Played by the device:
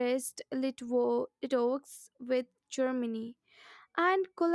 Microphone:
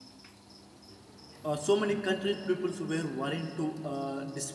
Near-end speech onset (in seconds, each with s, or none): 1.4 s